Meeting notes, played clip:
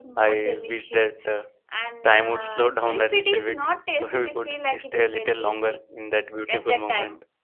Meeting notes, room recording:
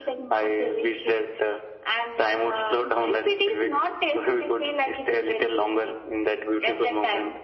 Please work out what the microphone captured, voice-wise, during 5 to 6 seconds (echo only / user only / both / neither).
echo only